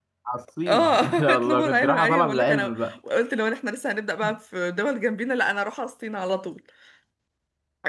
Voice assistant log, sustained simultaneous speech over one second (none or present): present